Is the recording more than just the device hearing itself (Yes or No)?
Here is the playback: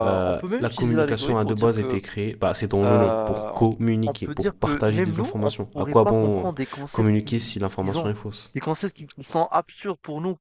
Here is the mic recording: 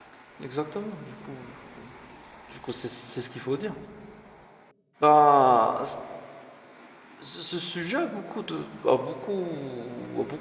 Yes